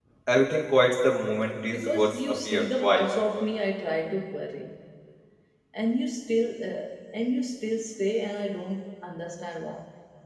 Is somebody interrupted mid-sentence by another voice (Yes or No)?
Yes